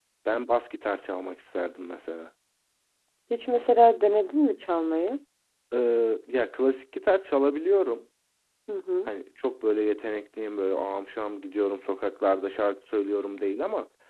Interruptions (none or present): none